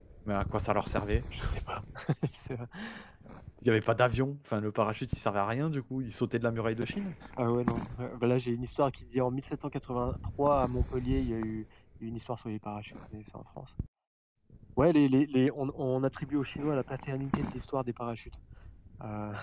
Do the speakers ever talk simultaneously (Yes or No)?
No